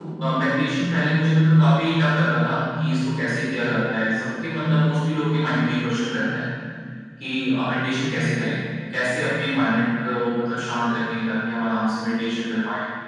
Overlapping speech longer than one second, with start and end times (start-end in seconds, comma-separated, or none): none